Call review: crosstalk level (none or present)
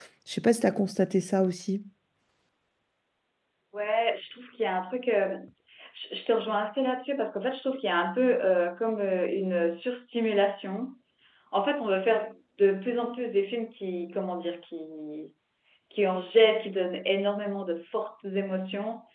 none